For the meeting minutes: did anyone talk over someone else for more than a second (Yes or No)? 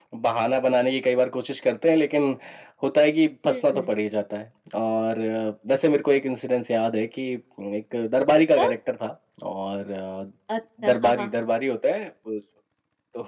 No